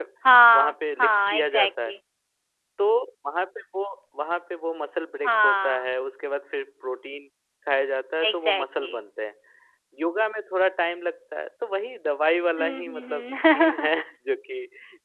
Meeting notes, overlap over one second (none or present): present